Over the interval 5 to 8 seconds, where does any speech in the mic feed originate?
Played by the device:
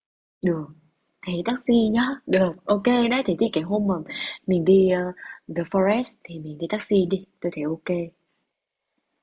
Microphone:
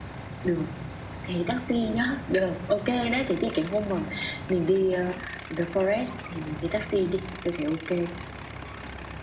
echo only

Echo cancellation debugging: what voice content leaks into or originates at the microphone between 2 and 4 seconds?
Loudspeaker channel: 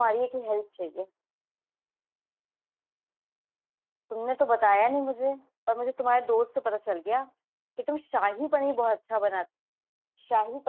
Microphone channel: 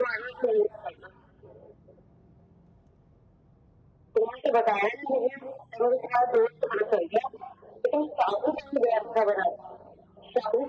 neither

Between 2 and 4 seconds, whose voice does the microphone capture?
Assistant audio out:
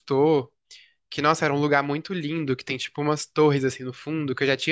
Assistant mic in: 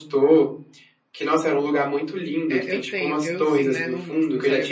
both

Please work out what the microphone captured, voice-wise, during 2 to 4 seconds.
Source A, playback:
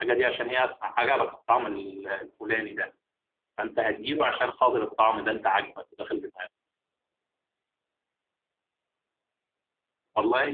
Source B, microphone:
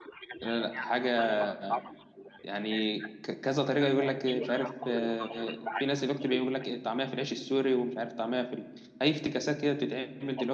both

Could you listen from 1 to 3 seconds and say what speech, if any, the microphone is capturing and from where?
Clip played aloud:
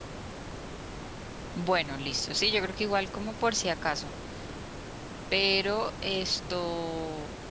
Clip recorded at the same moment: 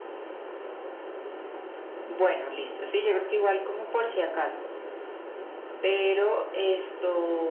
echo only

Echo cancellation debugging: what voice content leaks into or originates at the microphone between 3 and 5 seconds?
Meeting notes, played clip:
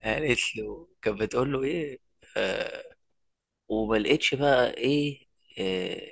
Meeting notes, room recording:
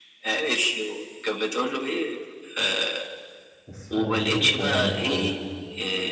both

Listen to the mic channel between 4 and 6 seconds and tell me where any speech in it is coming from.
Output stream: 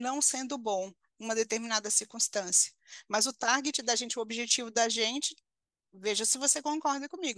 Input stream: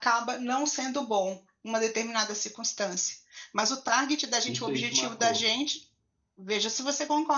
both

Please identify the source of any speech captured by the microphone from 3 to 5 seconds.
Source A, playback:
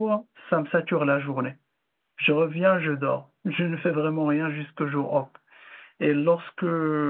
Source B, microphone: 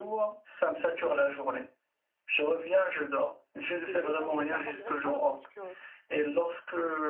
both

